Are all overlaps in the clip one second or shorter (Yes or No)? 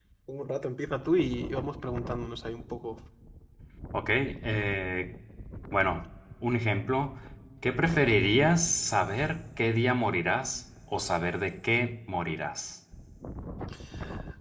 Yes